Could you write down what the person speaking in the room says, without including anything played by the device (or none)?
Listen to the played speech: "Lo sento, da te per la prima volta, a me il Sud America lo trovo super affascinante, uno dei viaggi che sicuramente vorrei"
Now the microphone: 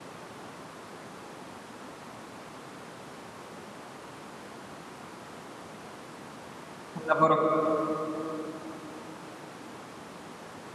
Un lavoro